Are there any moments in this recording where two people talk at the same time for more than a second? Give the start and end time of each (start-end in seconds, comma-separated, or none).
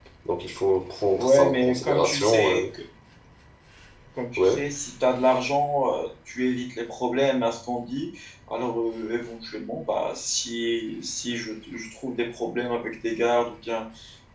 1.1-2.6